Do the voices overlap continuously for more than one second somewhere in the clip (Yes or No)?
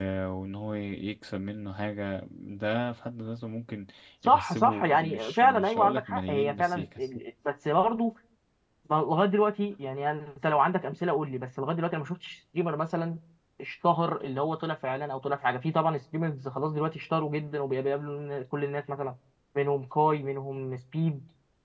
Yes